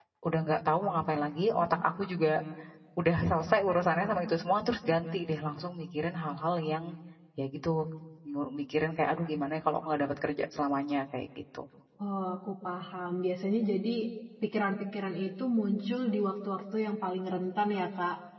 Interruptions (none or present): none